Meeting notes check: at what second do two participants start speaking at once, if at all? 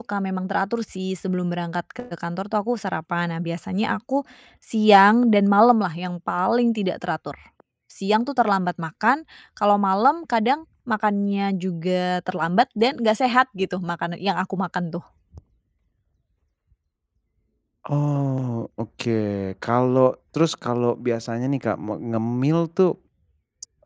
none

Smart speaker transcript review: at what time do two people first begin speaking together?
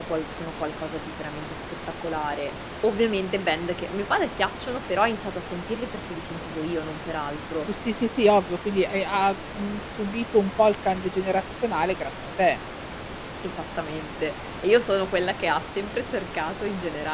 none

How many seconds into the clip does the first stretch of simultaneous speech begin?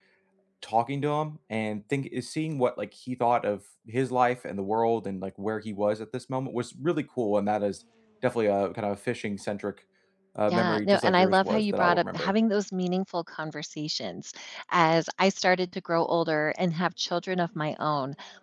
10.5 s

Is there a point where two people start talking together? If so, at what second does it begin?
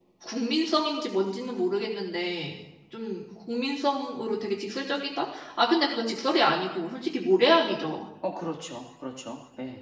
none

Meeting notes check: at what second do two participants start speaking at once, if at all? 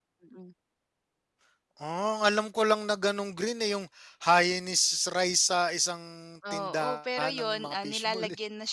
6.4 s

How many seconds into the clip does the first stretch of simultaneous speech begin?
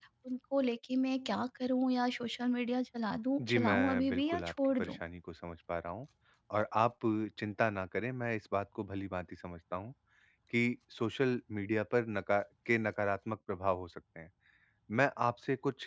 3.4 s

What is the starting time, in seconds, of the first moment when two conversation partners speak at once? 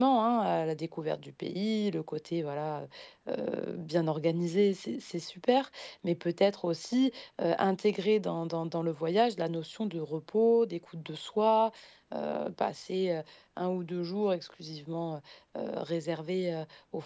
none

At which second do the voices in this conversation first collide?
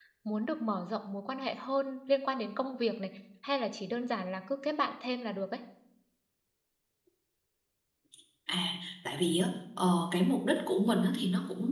none

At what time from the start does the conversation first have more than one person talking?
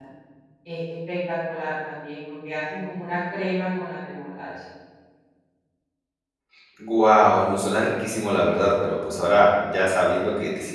none

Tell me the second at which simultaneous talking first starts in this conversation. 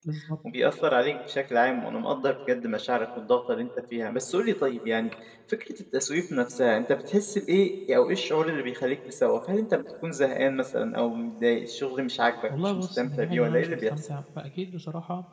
12.5 s

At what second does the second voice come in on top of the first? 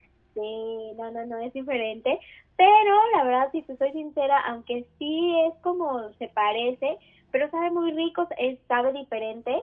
none

